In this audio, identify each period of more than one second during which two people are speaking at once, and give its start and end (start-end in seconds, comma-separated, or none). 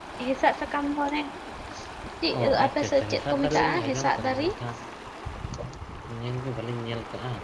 2.4-4.5